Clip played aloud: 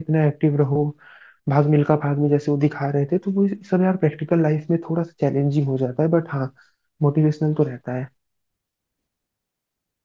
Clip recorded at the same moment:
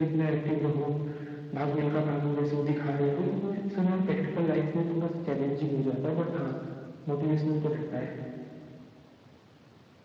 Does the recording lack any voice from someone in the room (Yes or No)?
Yes